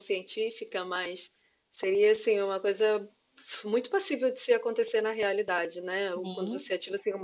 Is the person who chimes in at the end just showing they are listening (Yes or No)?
Yes